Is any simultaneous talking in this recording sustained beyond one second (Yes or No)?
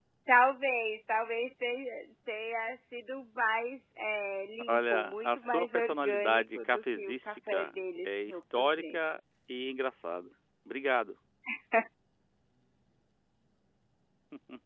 Yes